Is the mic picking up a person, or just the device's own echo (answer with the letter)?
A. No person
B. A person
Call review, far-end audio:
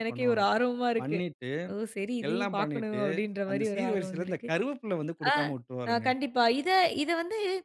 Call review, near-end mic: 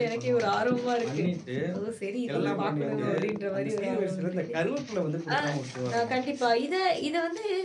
B